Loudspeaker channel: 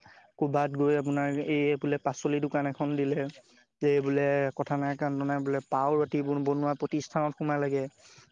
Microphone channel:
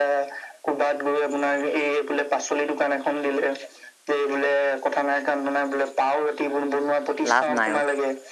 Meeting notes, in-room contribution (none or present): present